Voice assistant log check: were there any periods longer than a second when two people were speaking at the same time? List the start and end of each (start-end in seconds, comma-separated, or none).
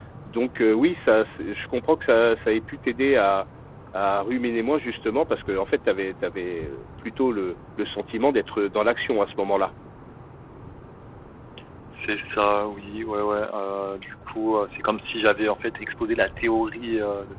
none